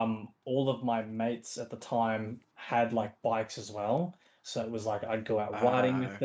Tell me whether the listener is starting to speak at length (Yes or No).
No